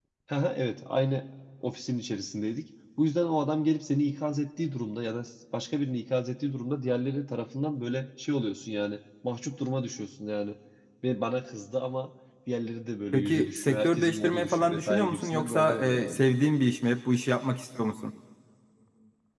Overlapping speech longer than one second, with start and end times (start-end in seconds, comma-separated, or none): 13.1-16.2